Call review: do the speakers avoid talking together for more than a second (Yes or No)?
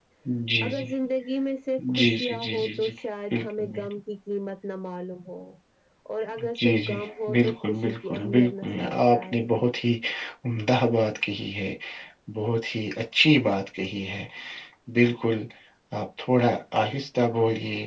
No